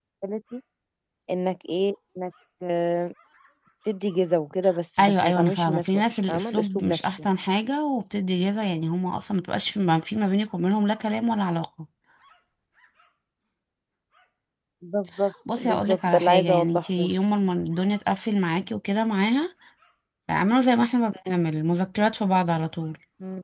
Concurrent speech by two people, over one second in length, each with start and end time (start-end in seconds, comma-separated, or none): 5.0-7.0, 15.6-17.1